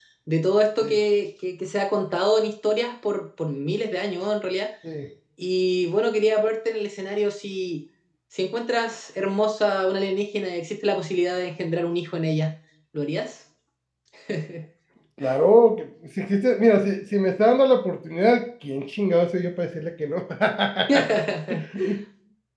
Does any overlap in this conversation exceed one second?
No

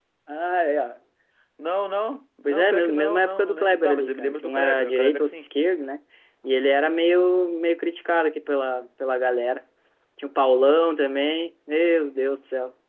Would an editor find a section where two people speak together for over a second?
Yes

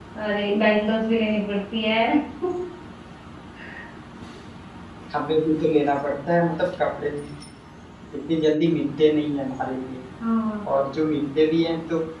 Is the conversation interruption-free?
Yes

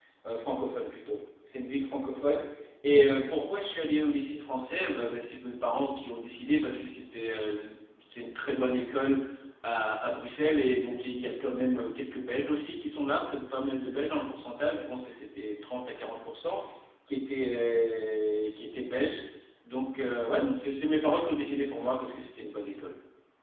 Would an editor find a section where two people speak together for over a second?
No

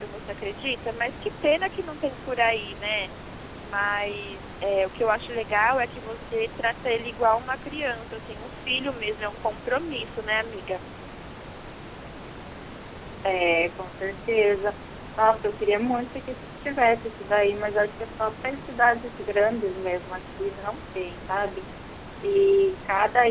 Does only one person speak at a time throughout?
Yes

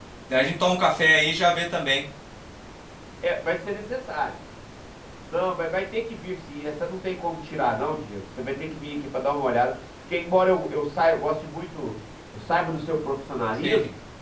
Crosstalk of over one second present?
No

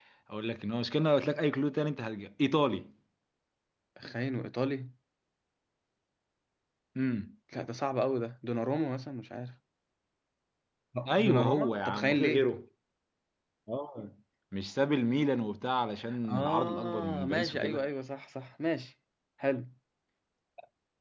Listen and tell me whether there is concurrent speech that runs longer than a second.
Yes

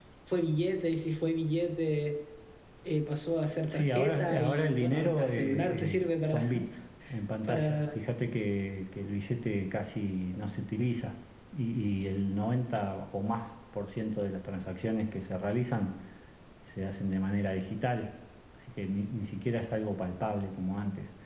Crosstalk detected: Yes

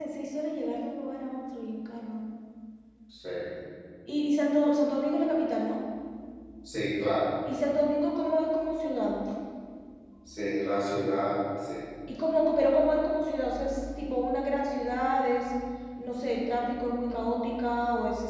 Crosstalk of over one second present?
No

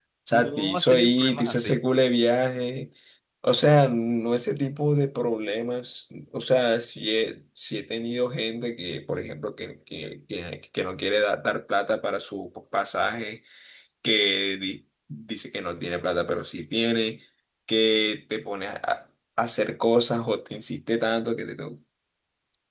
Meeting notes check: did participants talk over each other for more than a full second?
Yes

